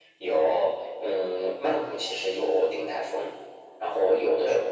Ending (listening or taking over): listening